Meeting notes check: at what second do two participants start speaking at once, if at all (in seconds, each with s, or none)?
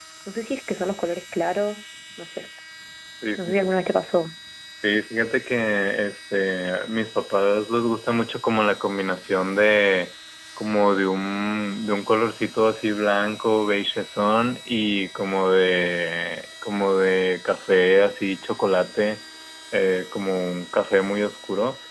none